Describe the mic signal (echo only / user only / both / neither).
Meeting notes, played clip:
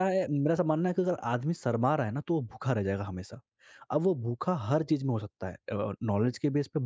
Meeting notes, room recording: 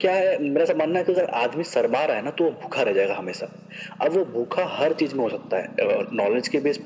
echo only